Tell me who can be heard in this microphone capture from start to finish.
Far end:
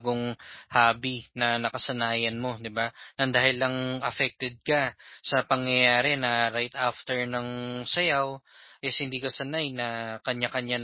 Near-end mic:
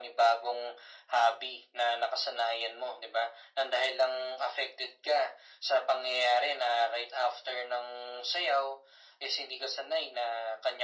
echo only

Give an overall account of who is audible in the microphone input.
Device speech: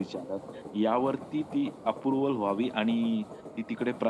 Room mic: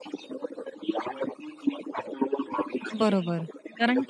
both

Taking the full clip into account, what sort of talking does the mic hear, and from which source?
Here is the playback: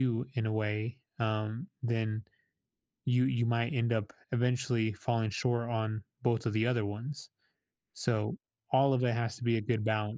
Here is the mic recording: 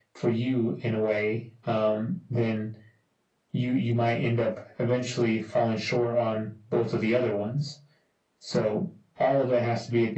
echo only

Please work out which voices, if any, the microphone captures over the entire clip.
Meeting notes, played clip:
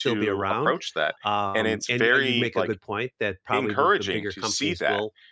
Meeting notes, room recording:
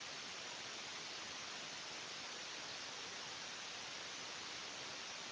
neither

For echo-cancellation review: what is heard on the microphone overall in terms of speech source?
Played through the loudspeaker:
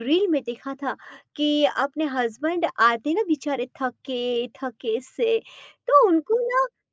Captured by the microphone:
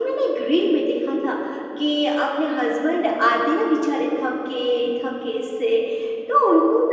echo only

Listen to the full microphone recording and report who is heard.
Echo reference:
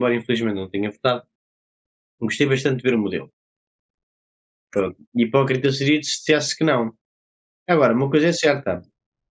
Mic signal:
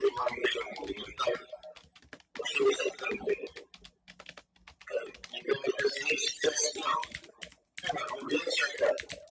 echo only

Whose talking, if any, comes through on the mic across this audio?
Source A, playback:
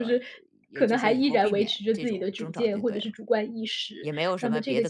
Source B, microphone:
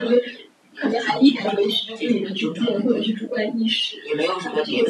echo only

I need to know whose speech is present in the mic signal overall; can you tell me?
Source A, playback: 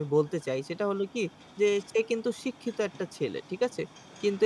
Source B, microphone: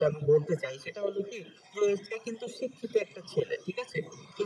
echo only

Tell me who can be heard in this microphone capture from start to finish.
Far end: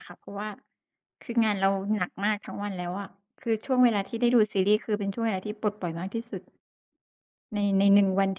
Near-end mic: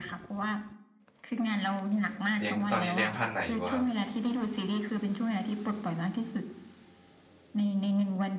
both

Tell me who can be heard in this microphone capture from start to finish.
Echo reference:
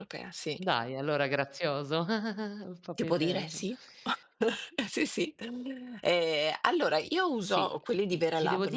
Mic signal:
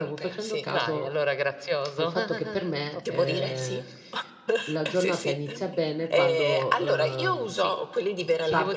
both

